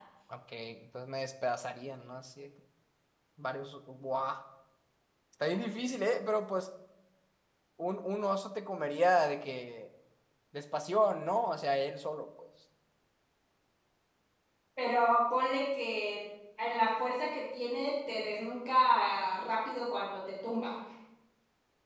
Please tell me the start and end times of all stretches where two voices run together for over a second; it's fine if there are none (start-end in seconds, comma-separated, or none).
none